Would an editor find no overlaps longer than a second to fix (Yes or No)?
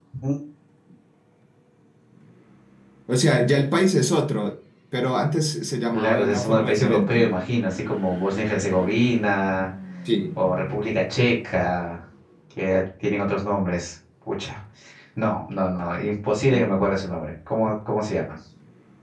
No